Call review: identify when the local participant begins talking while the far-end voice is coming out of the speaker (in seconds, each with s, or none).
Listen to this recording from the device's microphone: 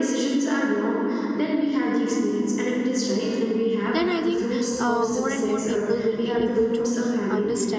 3.9 s